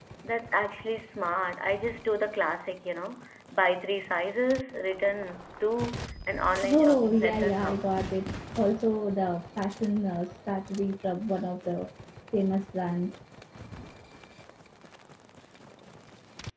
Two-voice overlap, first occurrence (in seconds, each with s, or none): 6.6 s